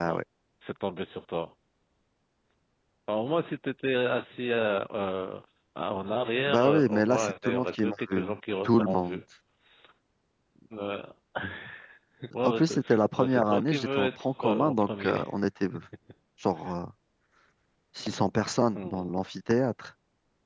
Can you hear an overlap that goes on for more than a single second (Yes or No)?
Yes